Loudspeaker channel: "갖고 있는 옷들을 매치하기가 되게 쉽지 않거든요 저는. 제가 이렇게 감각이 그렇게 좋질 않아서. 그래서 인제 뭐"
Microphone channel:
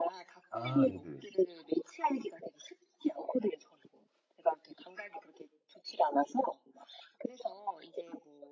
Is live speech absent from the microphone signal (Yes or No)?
No